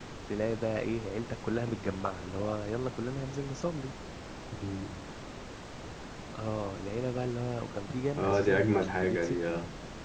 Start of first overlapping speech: 8.2 s

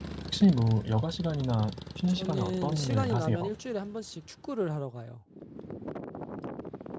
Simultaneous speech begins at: 2.1 s

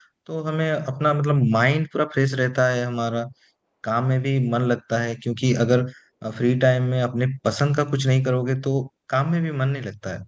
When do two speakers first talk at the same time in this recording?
none

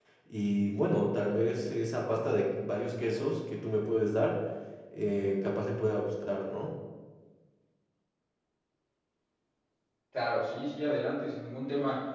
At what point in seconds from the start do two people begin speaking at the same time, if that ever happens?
none

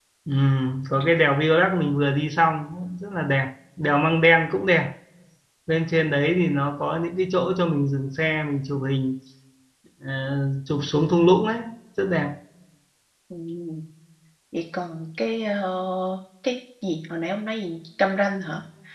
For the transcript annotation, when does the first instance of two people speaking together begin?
none

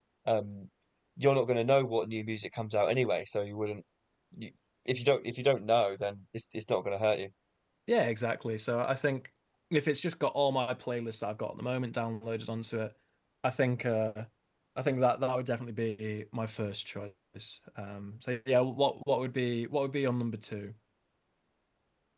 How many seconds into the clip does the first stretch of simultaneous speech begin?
none

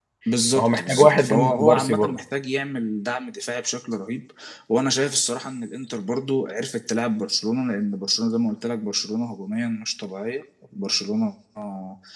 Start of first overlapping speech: 0.6 s

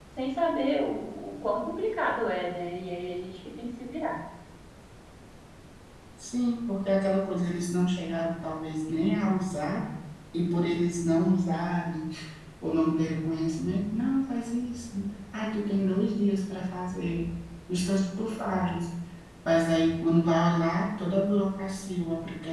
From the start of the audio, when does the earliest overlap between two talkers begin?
none

